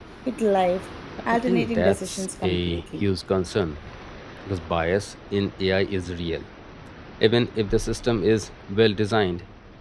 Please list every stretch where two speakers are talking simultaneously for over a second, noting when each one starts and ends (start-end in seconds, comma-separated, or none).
1.5-3.0